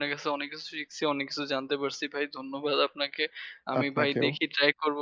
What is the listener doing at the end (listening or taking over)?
listening